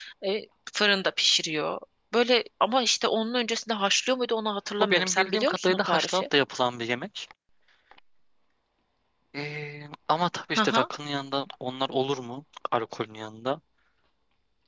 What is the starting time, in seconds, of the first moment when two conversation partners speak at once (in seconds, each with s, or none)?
4.8 s